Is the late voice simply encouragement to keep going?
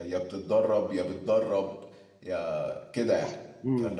No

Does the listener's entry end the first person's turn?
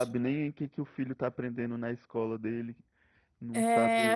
Yes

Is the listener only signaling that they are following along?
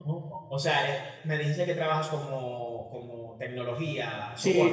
No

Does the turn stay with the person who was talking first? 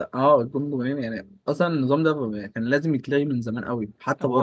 No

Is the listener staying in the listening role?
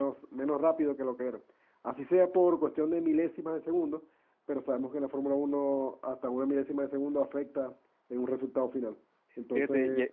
No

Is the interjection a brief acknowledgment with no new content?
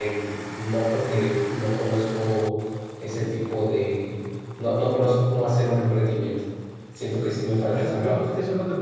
No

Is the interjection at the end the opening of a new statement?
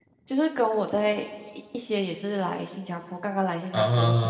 No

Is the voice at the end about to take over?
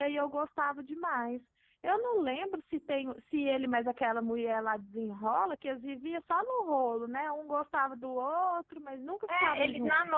Yes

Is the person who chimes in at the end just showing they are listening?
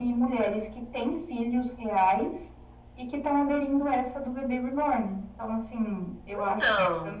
Yes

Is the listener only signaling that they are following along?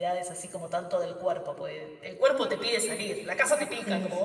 No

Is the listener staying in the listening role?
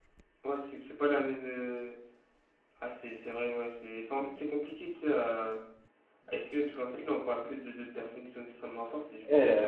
No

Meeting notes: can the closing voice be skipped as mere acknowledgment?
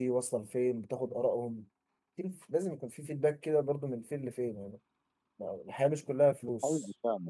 No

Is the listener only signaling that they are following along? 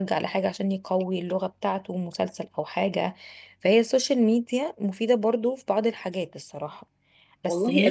No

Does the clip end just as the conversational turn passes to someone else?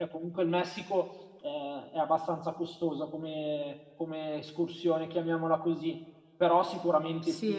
Yes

